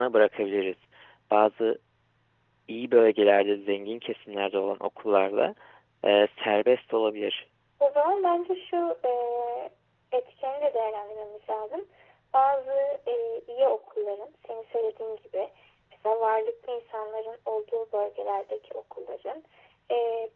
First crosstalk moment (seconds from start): none

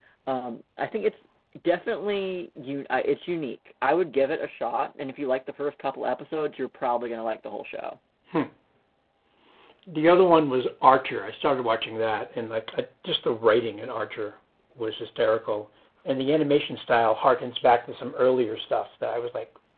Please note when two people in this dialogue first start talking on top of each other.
none

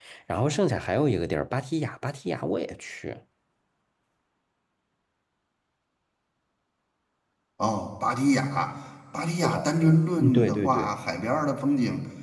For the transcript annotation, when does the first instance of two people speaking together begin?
9 s

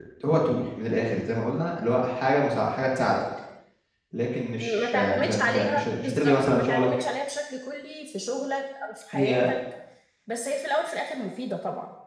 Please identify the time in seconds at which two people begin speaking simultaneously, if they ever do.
5 s

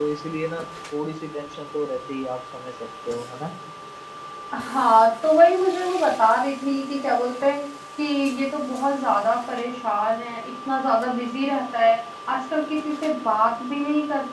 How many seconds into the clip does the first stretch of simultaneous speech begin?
none

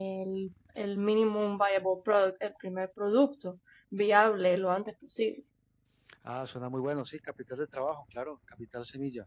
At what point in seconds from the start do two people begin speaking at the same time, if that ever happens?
none

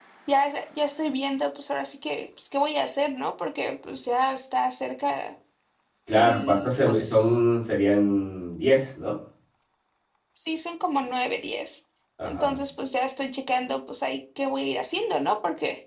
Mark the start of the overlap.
6 s

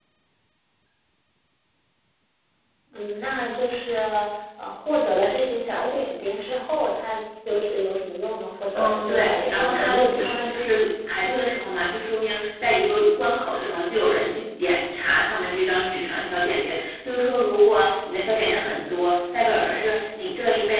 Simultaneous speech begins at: 9 s

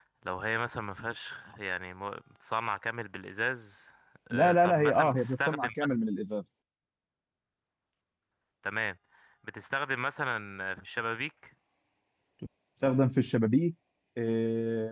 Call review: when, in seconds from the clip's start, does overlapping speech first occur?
4 s

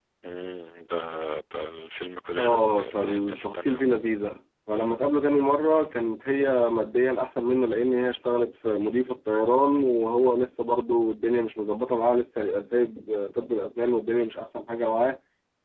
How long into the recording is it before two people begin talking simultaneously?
2 s

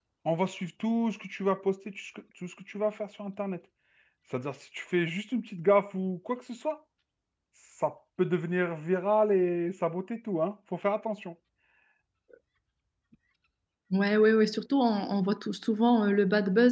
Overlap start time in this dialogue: none

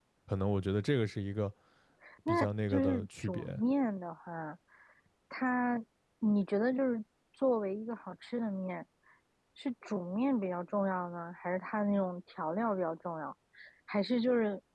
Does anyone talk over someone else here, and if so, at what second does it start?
2 s

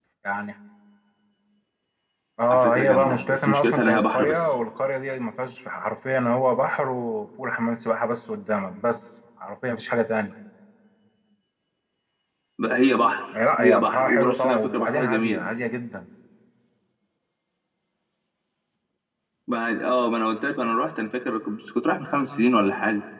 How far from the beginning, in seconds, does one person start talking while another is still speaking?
3 s

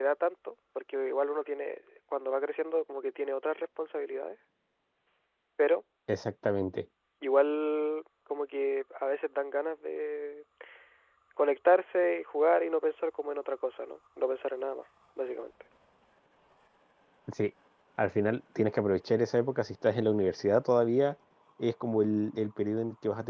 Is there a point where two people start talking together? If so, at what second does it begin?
none

